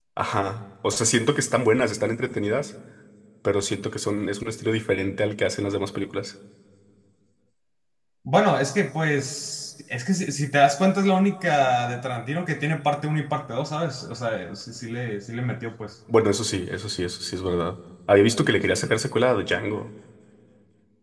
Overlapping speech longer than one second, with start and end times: none

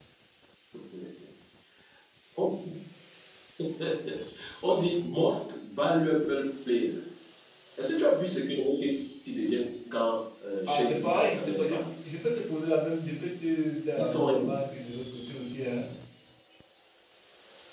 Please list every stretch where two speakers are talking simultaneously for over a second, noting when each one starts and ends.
10.7-11.9

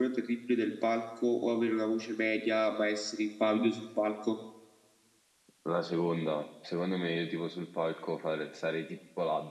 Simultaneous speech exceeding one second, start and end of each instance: none

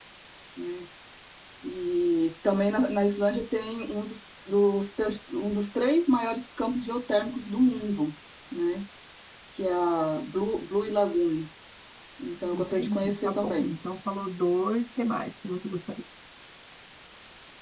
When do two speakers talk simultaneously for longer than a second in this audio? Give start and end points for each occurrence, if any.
12.5-13.8

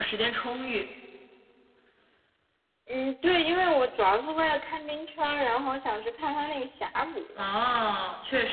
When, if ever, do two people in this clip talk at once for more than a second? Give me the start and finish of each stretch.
none

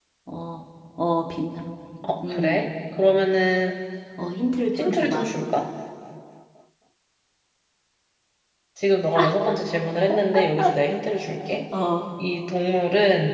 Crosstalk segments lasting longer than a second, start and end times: none

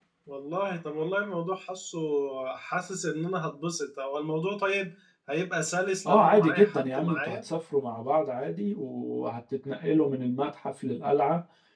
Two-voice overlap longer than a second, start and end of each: 6.1-7.4

